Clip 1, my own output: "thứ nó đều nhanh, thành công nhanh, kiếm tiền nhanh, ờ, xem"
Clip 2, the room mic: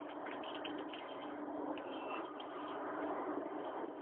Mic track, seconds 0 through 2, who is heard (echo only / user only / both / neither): neither